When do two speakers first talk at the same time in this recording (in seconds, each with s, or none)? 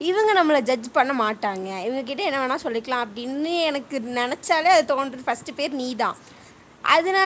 none